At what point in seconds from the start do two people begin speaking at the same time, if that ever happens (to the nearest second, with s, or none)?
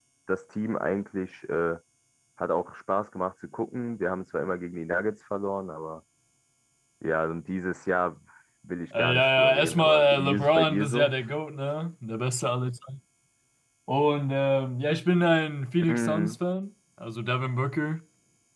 9 s